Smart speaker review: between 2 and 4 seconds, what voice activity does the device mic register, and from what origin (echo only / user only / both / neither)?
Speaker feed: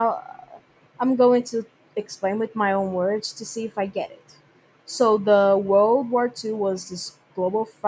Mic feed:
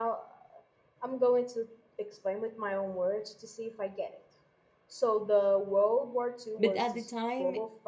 echo only